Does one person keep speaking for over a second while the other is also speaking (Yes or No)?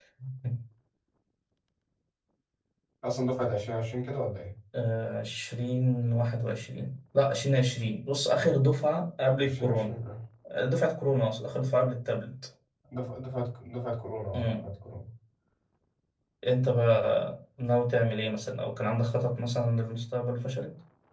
No